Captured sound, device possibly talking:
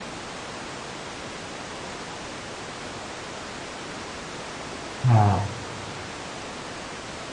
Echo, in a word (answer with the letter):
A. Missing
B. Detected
A